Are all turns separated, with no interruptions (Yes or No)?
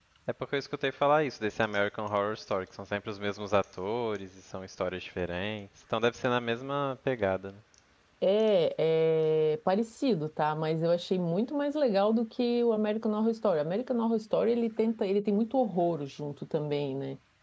Yes